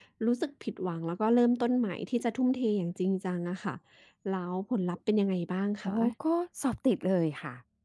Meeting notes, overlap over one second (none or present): none